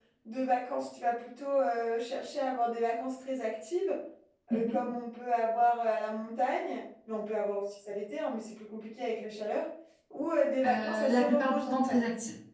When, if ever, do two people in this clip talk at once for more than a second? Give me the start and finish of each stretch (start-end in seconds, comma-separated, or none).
10.7-11.9